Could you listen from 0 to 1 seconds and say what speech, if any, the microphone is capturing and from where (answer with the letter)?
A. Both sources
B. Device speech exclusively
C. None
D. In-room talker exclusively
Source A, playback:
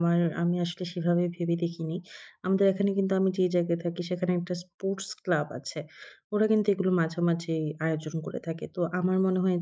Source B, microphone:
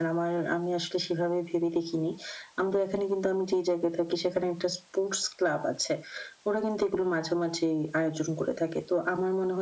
B